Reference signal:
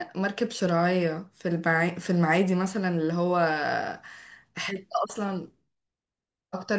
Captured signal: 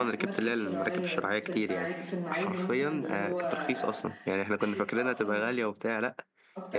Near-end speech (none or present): present